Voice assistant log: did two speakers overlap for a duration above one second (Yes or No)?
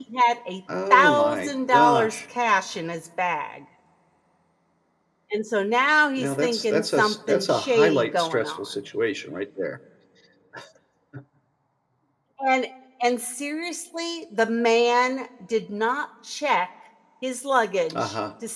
Yes